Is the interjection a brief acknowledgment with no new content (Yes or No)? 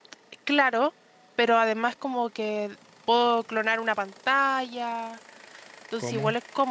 Yes